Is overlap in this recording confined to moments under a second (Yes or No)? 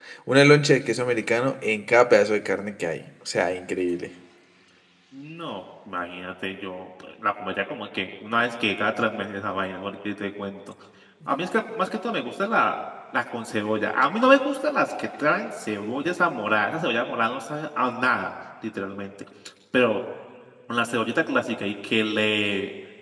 Yes